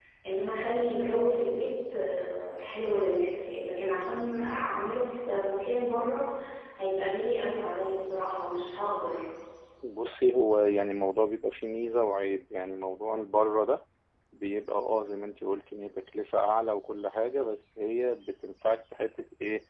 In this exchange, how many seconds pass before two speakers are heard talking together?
none

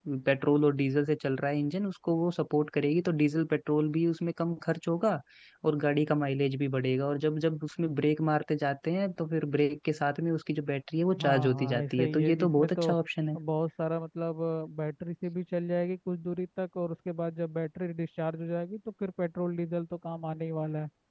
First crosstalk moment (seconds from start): 11.1 s

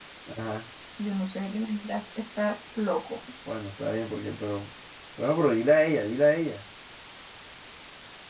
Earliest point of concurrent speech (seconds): none

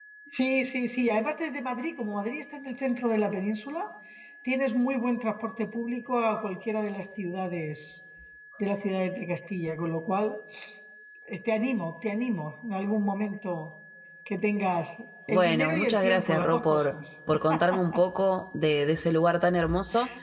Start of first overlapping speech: 15.3 s

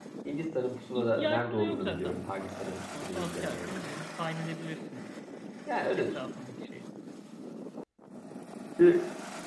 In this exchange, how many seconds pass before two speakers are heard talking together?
0.9 s

